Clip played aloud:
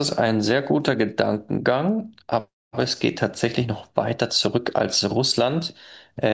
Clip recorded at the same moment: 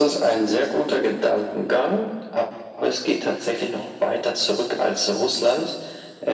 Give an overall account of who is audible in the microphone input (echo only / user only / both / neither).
echo only